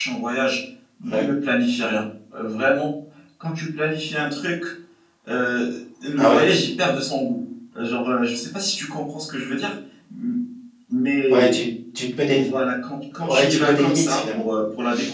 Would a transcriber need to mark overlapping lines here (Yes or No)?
Yes